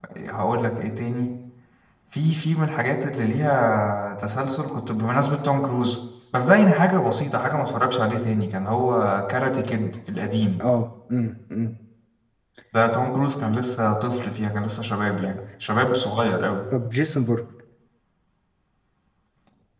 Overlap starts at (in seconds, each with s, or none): none